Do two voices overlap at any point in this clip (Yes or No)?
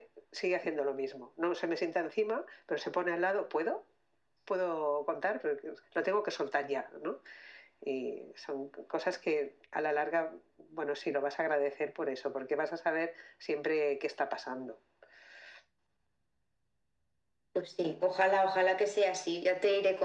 No